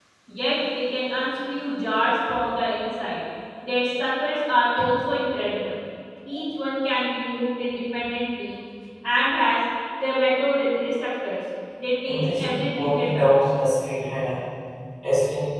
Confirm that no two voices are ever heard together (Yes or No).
No